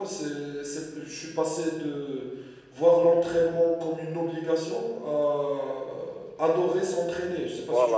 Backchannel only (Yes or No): No